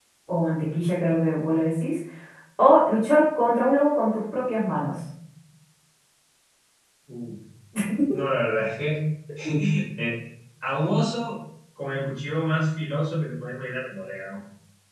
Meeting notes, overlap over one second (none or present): none